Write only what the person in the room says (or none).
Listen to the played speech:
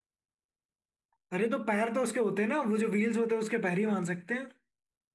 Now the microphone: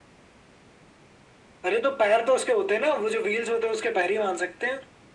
none